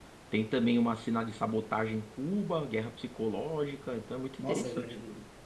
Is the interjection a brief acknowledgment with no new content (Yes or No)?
No